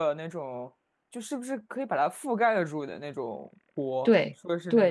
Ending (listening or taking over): taking over